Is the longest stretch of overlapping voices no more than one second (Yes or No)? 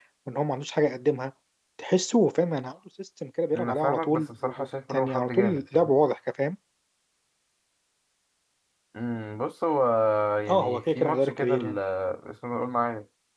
No